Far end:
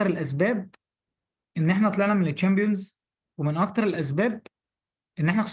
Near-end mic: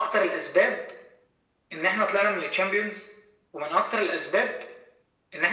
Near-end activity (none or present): none